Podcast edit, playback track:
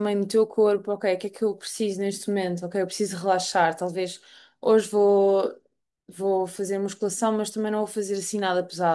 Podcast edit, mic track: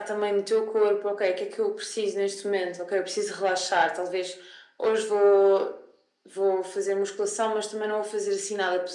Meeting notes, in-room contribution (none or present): none